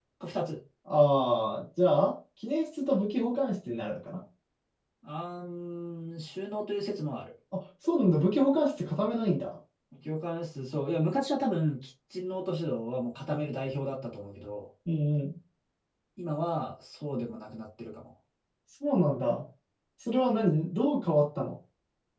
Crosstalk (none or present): none